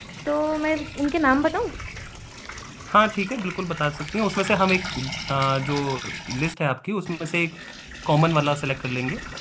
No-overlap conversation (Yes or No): Yes